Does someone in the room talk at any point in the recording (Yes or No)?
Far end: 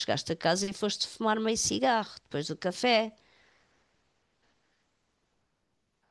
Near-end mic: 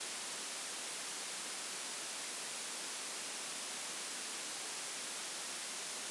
No